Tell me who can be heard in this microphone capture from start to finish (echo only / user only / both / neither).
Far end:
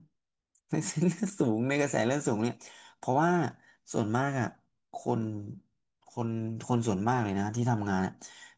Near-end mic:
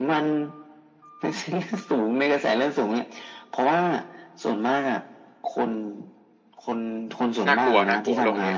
both